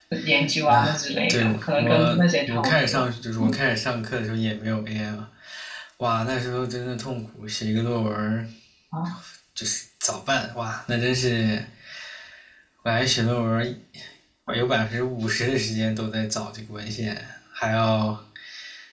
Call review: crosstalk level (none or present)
present